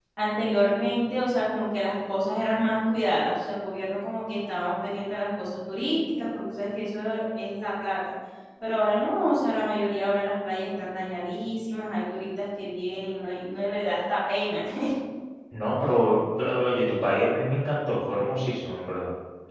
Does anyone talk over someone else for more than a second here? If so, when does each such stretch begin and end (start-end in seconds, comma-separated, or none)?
none